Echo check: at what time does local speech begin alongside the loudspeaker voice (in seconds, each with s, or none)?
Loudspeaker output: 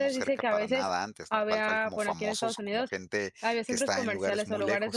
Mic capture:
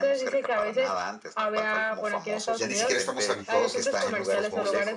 2.6 s